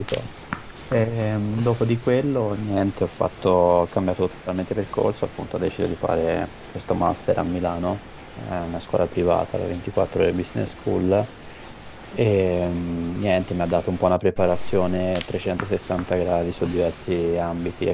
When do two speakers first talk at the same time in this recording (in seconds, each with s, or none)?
none